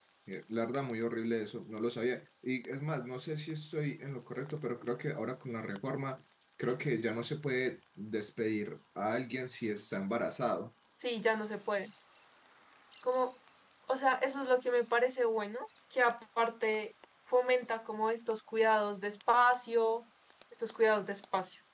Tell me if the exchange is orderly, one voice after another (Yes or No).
Yes